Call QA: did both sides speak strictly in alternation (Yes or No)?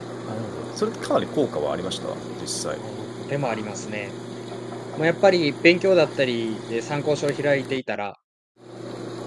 Yes